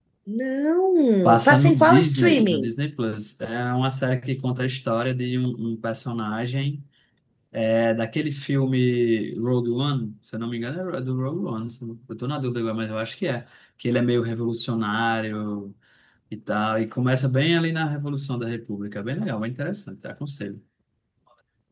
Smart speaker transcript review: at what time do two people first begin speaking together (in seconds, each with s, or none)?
1.2 s